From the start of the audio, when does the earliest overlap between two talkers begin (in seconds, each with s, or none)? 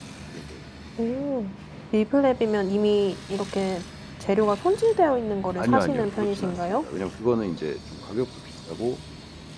5.6 s